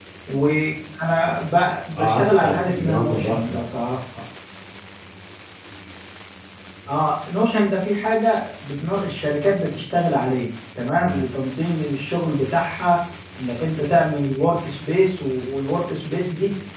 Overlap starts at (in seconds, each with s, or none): 2.0 s